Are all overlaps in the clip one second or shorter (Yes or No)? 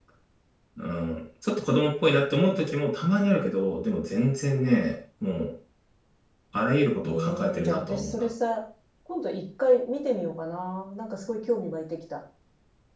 No